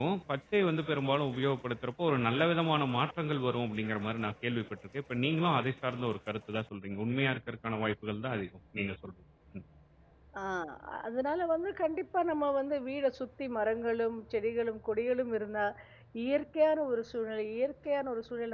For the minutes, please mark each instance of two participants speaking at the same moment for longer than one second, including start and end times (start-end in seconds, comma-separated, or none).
none